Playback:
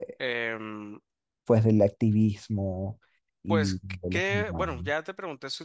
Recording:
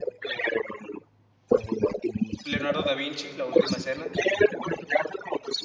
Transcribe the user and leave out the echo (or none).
Leonardo da Vinci, La Última Cena.